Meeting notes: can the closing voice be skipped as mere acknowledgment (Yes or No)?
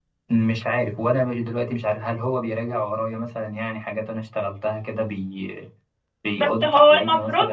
No